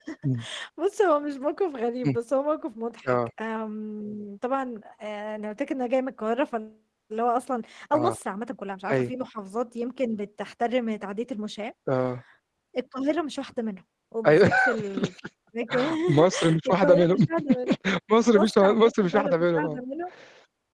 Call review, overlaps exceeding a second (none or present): present